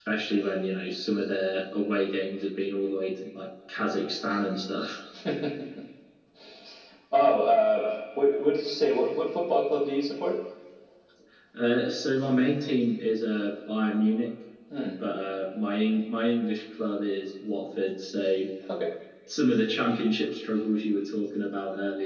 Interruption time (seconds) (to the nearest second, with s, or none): none